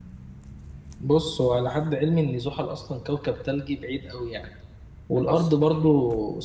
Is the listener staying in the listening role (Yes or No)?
Yes